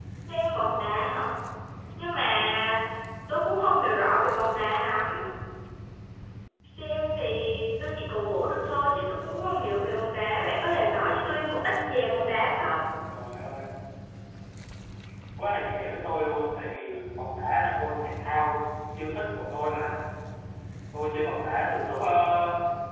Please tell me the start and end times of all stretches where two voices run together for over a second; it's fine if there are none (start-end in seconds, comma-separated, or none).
none